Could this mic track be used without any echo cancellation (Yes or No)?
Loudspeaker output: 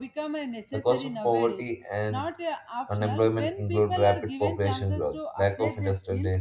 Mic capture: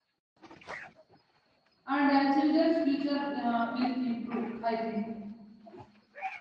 Yes